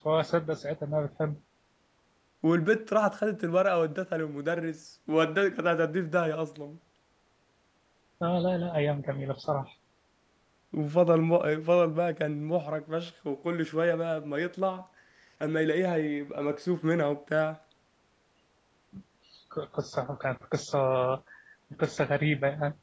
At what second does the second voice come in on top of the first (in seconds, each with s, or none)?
none